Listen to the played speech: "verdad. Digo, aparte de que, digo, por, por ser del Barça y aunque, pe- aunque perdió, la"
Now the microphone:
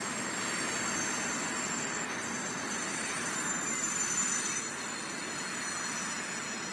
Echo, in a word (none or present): none